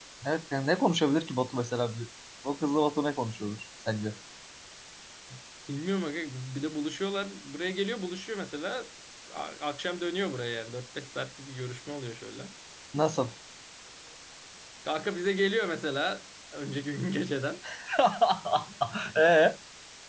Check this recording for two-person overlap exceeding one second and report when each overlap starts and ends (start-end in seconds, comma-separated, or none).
none